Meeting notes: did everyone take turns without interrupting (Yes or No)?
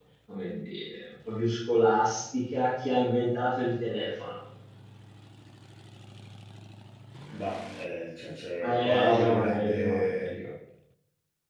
No